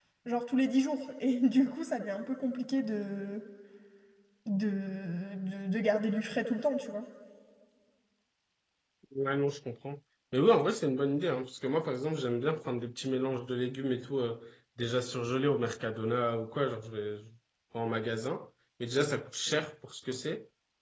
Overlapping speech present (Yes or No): No